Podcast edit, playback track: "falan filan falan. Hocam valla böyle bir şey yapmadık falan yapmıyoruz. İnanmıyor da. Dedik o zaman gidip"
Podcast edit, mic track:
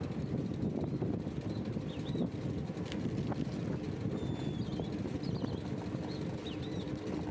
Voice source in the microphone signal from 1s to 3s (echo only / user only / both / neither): neither